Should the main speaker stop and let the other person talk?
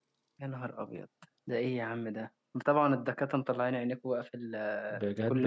Yes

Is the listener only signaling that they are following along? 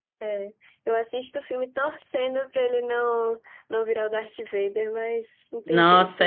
No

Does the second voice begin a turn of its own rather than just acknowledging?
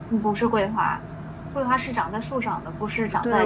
Yes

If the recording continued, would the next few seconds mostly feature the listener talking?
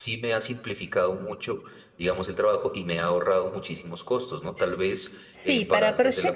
Yes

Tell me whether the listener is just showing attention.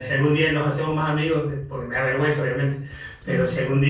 Yes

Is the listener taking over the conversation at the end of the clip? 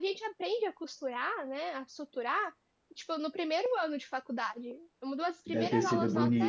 Yes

